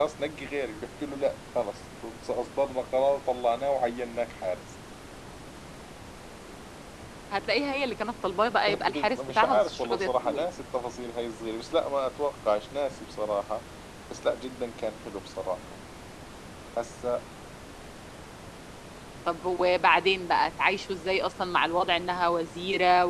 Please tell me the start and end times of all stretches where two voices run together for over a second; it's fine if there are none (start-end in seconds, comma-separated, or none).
8.7-10.5